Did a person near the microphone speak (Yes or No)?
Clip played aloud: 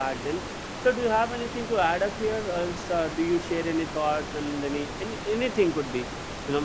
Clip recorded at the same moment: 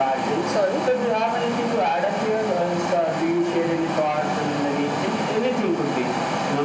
Yes